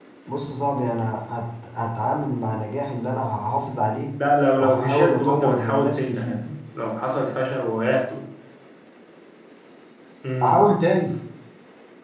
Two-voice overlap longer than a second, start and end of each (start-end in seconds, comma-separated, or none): 4.6-6.4